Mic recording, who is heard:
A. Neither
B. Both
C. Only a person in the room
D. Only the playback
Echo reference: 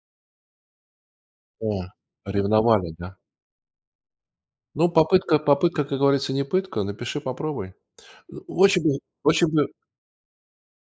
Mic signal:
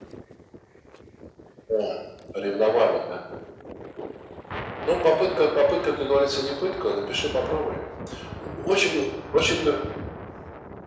D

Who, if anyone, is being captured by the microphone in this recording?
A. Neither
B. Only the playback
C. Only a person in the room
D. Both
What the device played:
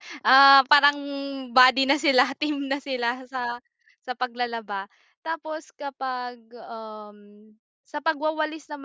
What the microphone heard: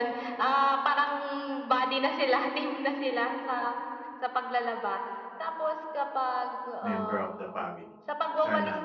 D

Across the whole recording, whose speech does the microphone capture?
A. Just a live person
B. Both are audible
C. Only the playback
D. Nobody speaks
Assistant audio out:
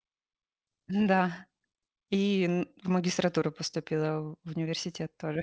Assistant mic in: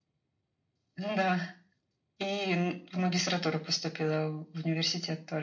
C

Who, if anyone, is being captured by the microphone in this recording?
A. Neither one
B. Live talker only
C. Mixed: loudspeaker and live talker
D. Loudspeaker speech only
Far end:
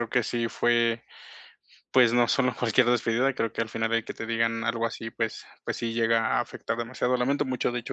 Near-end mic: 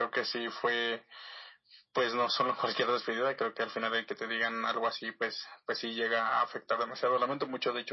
D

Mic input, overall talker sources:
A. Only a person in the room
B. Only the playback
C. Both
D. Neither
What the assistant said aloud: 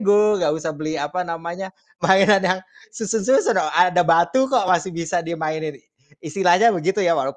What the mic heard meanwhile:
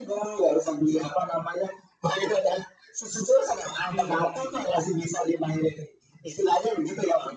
C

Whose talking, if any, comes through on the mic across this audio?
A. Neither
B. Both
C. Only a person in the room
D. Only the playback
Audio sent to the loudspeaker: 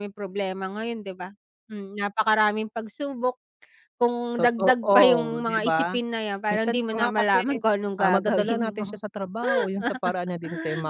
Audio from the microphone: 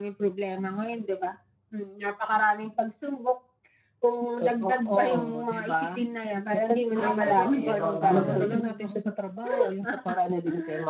B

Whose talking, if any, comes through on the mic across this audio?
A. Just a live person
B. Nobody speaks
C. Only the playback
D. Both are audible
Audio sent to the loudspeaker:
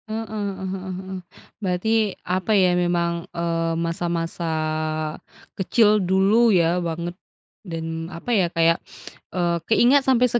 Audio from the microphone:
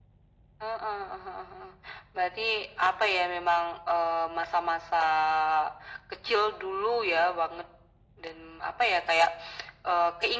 C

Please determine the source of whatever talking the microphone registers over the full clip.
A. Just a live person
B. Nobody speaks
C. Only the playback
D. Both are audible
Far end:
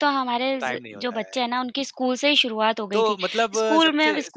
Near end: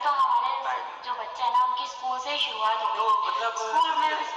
C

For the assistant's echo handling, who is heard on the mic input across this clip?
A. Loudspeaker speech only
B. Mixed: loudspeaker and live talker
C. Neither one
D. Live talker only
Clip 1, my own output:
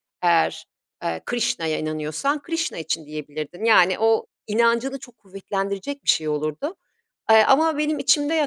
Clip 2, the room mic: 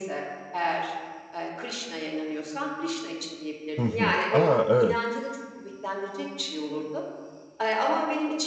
B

